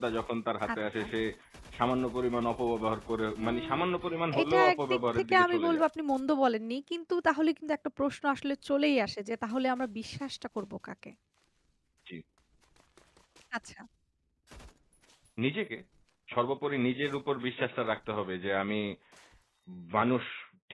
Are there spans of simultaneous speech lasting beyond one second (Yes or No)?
Yes